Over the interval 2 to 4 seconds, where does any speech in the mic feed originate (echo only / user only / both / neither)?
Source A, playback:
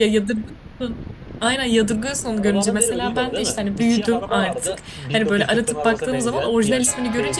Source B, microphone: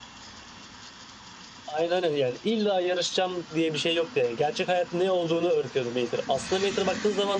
user only